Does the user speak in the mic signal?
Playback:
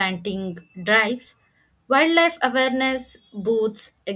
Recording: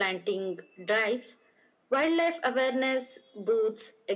No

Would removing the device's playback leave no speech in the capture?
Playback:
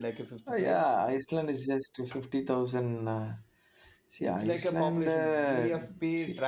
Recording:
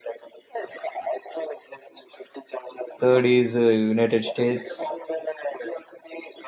No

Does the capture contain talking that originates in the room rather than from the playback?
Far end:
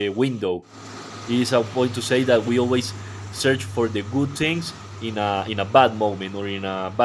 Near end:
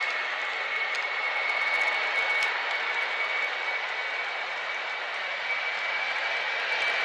No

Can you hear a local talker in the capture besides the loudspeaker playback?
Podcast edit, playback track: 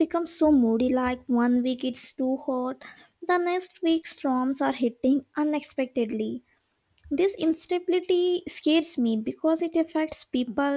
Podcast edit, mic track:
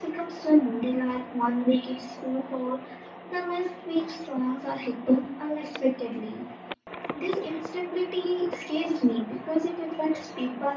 No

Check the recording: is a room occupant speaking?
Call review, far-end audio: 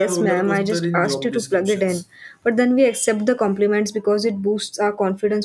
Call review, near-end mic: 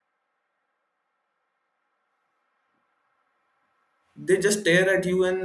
Yes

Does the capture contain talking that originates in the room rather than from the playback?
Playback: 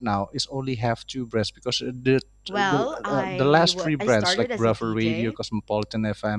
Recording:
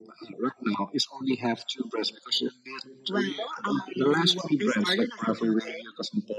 No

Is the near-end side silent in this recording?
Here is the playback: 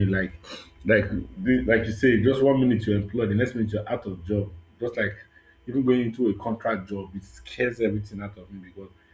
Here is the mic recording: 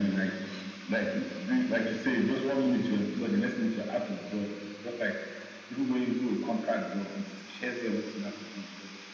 Yes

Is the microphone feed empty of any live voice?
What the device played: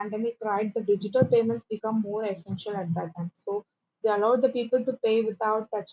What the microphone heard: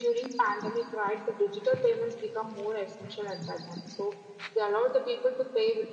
Yes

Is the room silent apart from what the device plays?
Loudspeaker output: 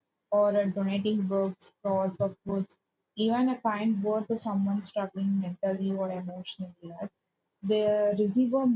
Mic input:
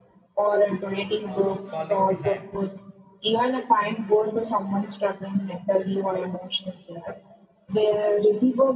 No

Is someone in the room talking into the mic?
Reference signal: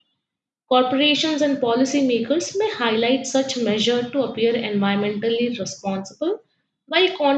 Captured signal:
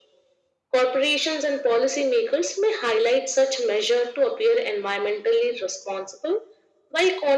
No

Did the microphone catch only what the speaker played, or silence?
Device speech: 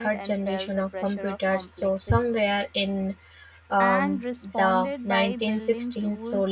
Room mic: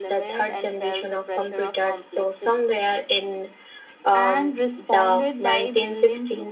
Yes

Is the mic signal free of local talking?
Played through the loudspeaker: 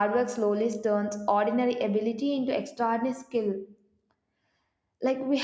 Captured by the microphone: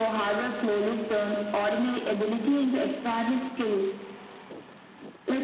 Yes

